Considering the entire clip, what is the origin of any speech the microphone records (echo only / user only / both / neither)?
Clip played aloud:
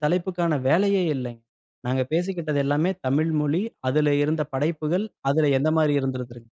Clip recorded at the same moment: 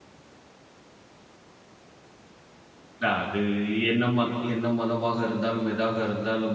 user only